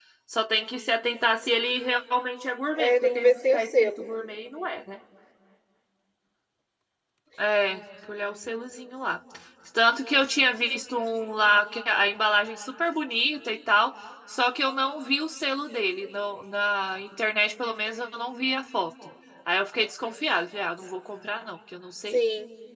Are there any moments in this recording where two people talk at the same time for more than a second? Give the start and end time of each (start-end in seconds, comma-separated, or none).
2.8-4.0